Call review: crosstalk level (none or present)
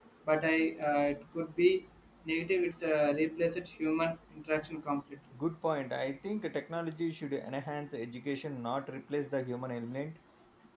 none